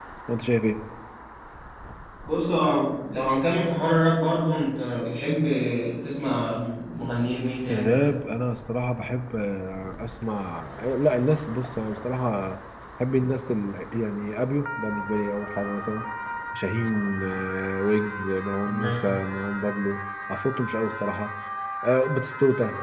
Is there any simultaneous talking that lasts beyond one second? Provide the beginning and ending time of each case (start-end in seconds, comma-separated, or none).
none